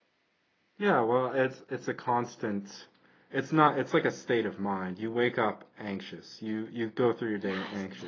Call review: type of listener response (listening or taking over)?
listening